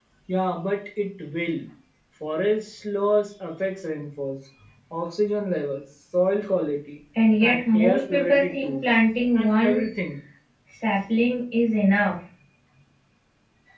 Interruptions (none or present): present